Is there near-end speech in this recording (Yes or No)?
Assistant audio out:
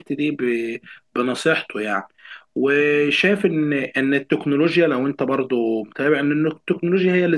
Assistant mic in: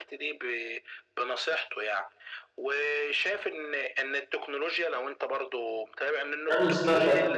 Yes